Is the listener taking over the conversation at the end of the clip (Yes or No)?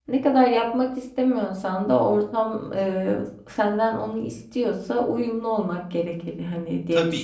Yes